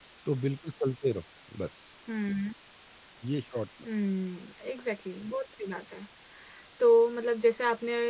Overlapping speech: No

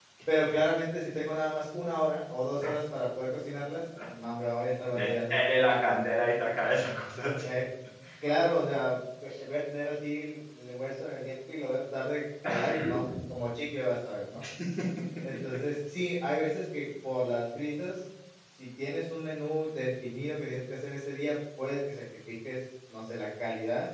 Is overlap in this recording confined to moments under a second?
No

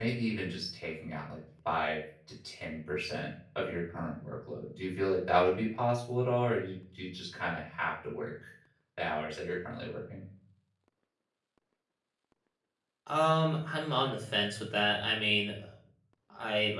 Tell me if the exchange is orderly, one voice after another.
Yes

